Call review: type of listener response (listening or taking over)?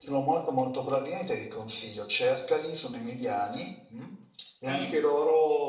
listening